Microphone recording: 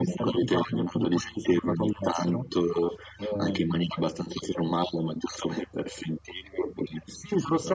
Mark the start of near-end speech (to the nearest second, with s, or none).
none